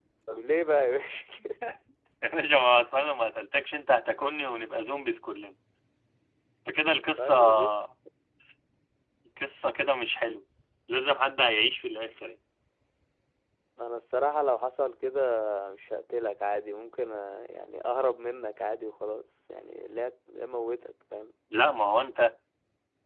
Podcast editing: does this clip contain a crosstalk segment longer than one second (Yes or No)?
No